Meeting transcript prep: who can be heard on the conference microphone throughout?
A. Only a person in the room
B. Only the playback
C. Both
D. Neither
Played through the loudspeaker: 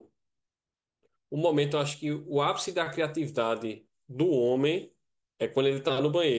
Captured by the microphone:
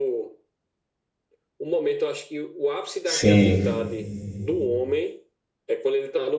C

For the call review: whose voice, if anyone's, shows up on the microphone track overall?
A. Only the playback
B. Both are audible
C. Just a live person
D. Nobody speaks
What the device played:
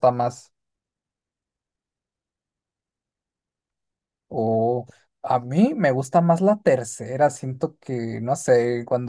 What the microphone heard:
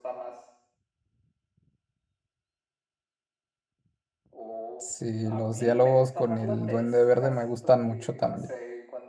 B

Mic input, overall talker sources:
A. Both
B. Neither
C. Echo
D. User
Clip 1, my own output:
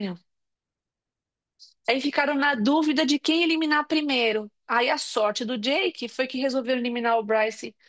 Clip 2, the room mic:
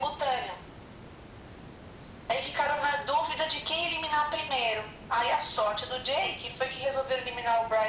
C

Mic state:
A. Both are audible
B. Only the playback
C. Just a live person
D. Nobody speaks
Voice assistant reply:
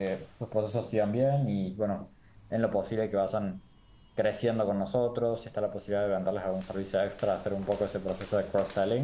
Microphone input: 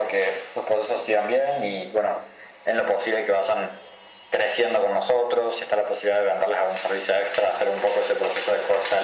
B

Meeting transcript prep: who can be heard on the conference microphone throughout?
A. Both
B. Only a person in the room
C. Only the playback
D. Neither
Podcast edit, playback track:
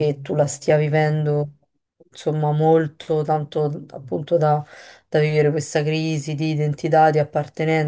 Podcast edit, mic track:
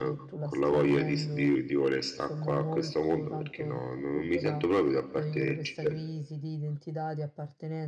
A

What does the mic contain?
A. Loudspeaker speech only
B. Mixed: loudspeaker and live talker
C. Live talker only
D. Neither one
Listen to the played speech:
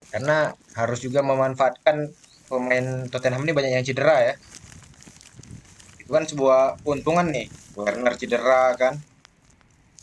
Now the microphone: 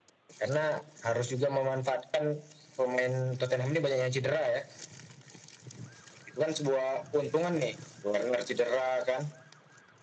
A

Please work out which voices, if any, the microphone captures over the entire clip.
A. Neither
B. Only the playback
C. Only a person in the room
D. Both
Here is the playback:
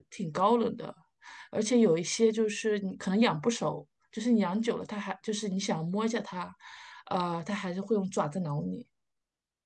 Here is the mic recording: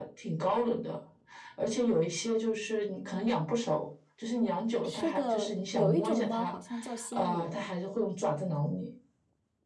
D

